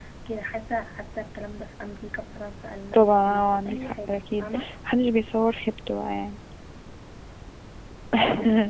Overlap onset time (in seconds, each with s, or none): 2.9 s